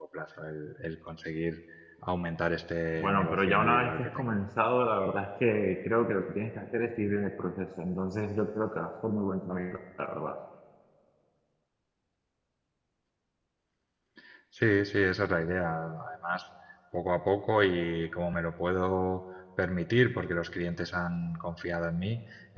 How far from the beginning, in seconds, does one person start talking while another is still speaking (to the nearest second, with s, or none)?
3 s